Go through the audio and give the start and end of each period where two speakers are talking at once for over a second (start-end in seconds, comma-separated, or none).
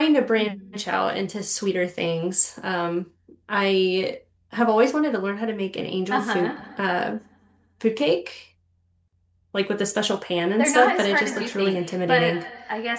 10.6-12.3